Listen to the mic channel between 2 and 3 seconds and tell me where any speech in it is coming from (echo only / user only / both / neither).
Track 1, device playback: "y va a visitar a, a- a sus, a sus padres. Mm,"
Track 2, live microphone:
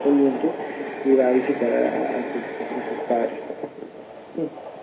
echo only